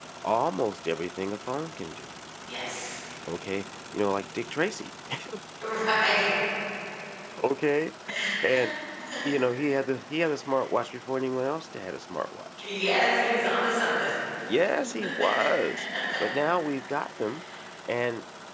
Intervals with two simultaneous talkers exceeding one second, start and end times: none

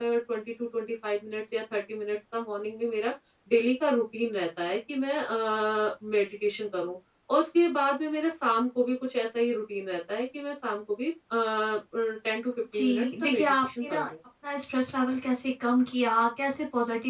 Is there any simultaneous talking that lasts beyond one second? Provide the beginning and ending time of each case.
12.7-14.1

